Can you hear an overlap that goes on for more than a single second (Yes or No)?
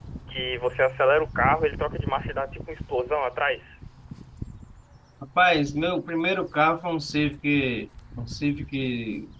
No